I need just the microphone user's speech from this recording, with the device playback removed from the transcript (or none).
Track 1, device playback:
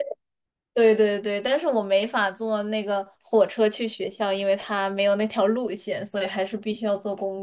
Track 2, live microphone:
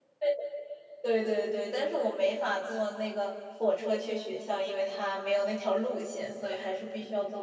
none